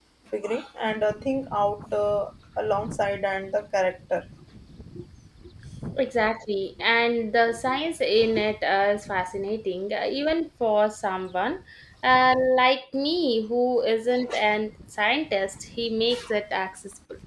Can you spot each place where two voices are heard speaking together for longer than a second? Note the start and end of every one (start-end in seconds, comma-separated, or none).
none